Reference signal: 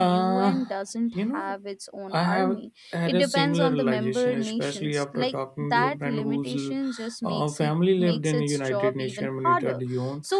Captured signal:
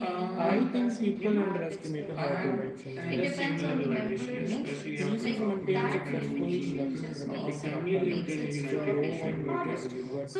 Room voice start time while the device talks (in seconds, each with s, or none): 0.3 s